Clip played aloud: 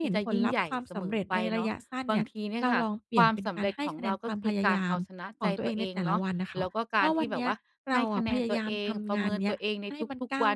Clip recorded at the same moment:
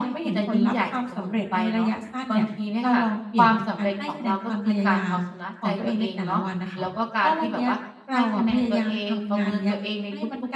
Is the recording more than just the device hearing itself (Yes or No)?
No